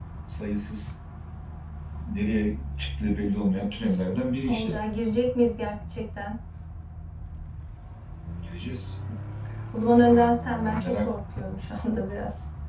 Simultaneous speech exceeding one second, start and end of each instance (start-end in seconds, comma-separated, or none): none